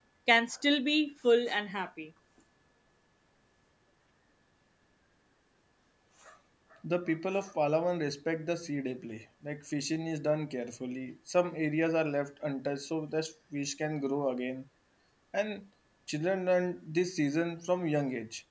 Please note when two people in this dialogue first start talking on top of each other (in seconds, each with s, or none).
none